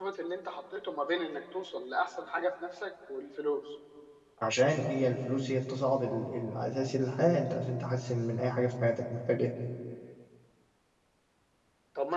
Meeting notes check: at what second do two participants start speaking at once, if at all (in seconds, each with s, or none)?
none